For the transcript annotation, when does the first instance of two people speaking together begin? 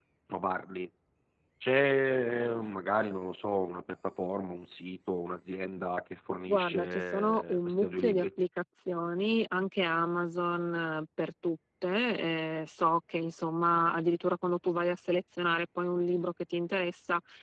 6 s

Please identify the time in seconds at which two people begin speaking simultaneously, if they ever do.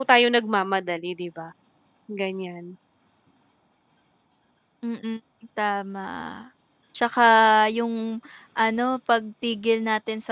none

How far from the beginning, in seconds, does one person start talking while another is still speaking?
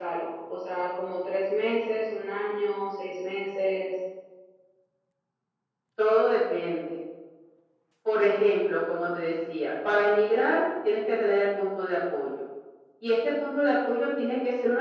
none

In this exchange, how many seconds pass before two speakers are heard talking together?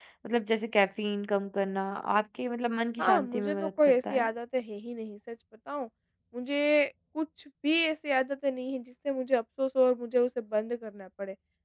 3 s

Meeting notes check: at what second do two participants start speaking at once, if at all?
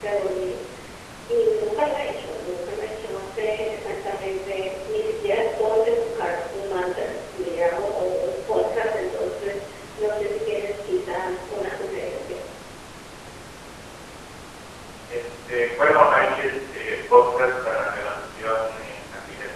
none

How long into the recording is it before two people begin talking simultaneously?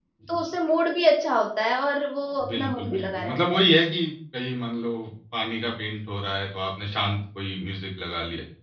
2 s

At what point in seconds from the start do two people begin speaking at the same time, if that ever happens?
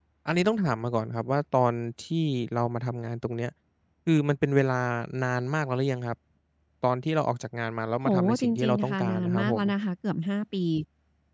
8 s

